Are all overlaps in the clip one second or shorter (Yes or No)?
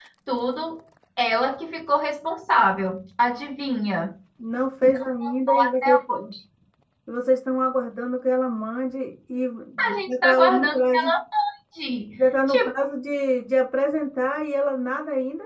No